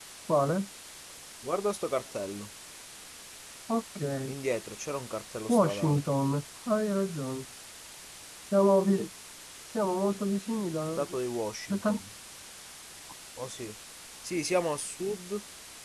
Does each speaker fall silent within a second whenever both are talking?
Yes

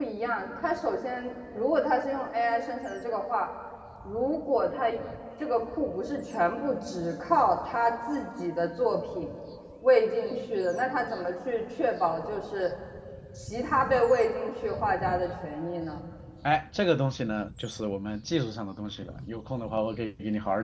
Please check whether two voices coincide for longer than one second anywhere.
No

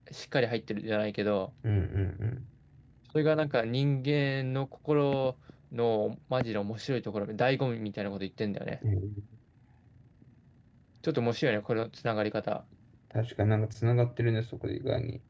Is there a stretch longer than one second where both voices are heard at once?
No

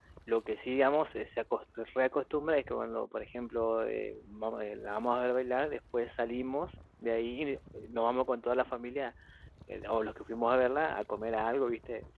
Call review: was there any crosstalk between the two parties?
No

